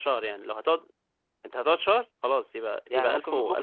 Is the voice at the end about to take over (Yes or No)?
Yes